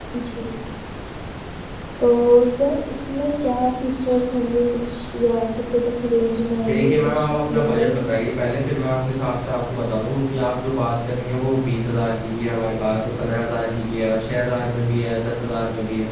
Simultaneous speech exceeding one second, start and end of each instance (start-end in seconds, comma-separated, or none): 6.7-8.0